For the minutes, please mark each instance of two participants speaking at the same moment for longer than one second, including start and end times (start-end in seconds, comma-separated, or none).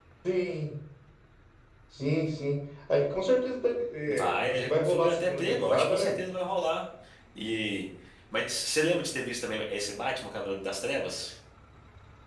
4.1-6.2